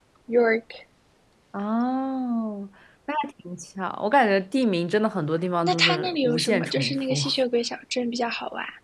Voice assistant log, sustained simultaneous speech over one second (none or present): present